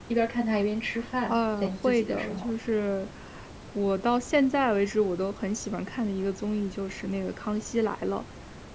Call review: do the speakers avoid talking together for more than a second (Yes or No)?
No